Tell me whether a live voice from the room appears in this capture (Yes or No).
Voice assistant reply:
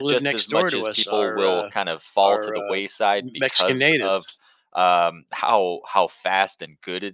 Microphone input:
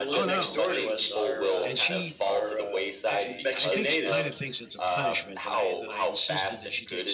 Yes